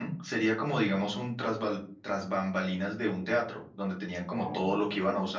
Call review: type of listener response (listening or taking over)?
listening